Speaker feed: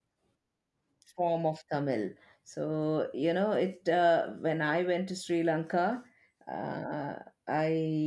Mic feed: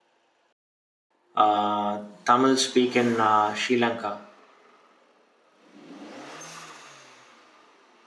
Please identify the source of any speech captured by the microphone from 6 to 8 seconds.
neither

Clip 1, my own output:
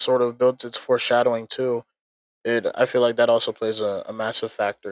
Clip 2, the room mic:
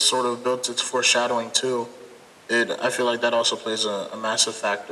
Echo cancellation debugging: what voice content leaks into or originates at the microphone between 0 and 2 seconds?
echo only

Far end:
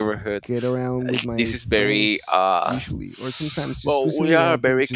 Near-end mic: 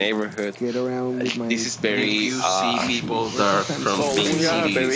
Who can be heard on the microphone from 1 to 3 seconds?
both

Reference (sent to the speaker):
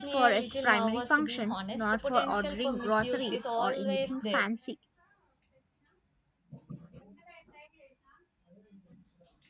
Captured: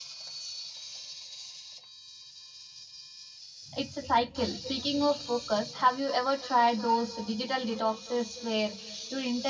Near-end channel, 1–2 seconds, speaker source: neither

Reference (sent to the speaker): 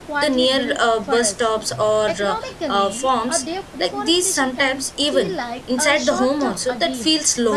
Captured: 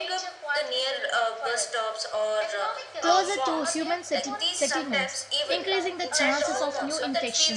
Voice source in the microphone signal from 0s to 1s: echo only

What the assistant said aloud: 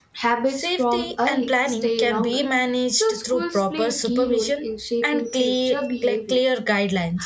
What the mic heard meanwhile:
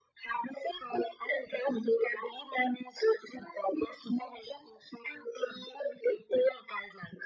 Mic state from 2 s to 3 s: echo only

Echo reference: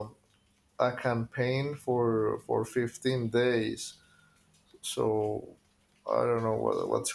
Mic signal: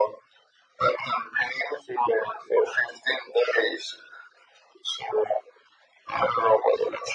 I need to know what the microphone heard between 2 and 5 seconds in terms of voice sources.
echo only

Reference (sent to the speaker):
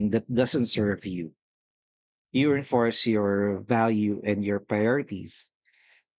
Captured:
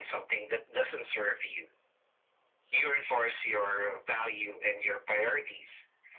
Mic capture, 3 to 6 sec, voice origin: echo only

